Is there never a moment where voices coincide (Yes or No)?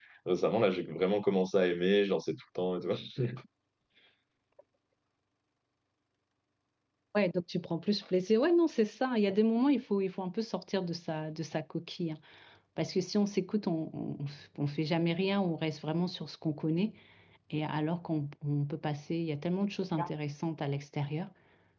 Yes